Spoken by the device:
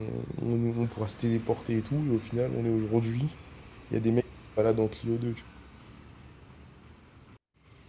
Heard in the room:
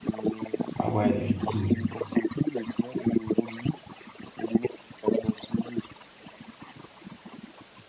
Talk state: both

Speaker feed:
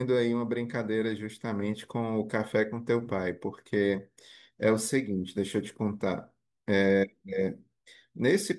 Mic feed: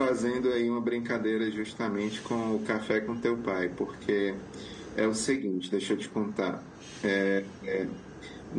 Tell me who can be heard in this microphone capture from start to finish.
echo only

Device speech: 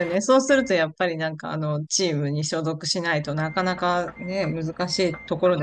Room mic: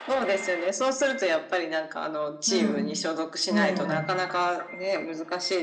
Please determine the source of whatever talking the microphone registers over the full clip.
both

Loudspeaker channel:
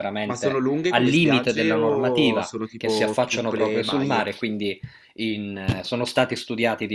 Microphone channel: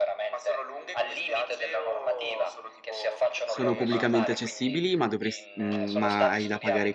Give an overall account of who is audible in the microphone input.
both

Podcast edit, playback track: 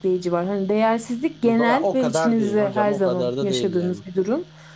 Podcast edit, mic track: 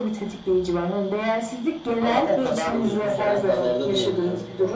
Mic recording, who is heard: both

